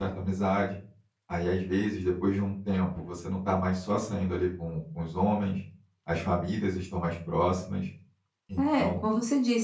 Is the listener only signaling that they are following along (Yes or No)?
No